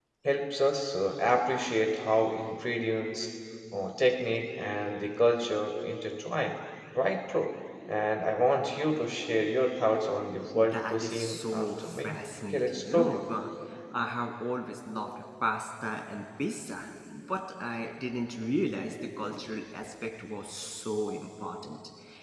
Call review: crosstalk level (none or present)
present